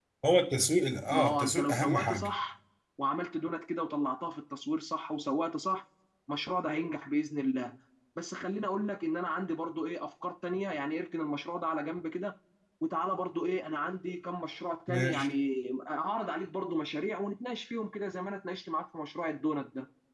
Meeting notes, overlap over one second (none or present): present